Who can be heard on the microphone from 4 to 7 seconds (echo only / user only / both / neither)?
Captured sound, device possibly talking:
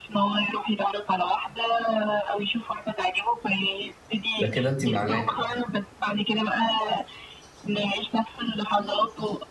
both